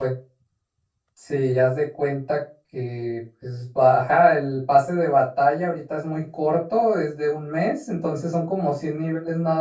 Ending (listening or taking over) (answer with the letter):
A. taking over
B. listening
B